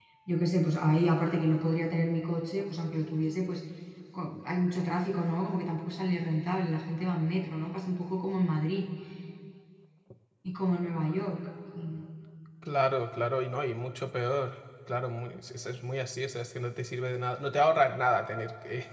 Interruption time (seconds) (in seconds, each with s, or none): none